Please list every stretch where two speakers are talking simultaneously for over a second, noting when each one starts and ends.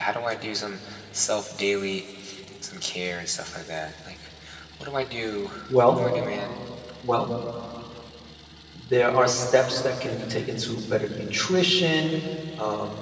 none

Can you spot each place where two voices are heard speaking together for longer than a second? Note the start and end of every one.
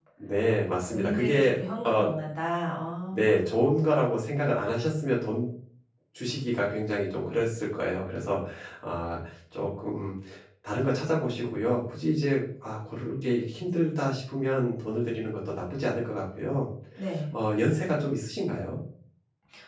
0.8-2.1

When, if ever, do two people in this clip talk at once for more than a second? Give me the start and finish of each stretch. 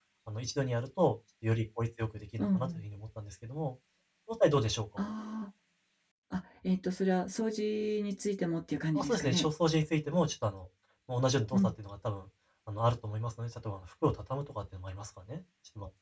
none

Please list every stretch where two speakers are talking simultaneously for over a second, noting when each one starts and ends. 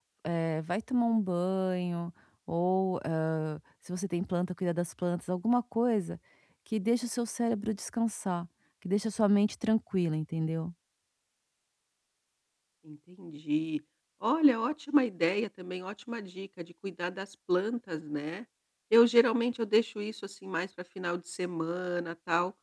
none

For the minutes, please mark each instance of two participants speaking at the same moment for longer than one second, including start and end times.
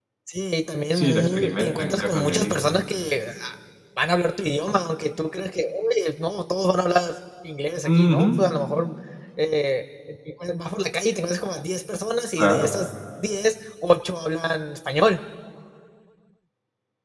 0.9-2.6

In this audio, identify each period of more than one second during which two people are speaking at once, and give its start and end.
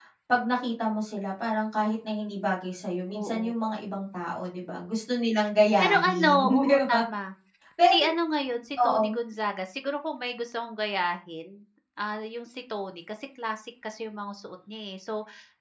5.8-7.0

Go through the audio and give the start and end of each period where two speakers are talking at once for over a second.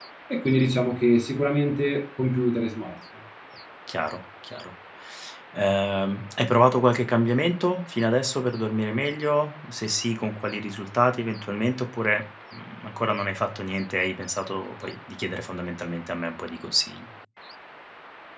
none

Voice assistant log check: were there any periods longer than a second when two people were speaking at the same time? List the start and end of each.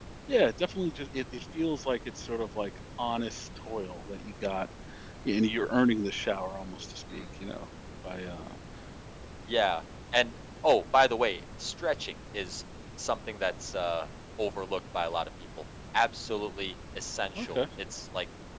none

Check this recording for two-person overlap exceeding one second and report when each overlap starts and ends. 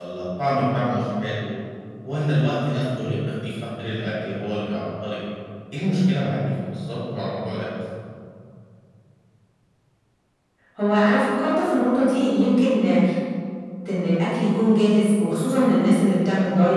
none

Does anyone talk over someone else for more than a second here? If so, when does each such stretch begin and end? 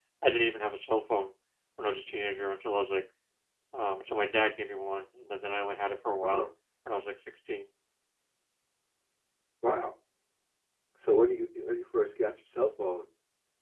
none

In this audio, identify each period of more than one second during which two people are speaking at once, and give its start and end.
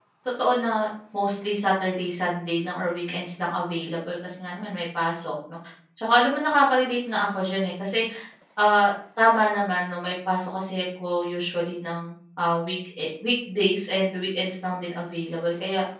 none

